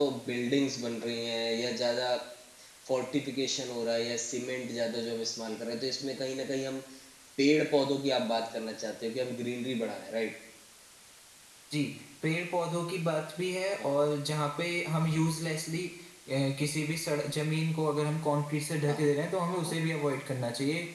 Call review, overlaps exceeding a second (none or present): none